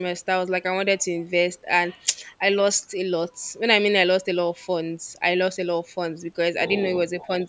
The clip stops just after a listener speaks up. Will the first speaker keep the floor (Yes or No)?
Yes